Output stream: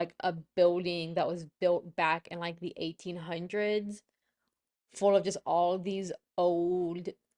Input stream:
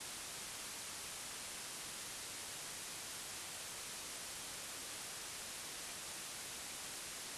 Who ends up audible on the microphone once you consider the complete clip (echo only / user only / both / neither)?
neither